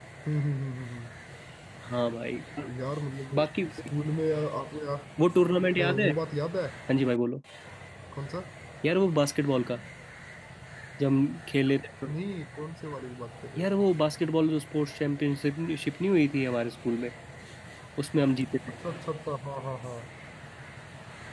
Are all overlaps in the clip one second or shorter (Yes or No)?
Yes